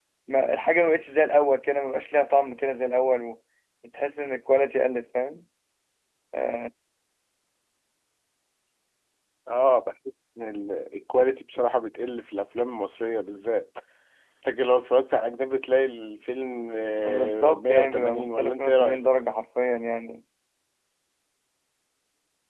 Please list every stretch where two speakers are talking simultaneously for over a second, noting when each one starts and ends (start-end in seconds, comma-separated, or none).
17.1-19.0